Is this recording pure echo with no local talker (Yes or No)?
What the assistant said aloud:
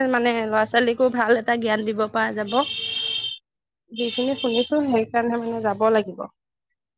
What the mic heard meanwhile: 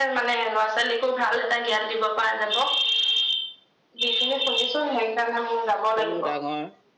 No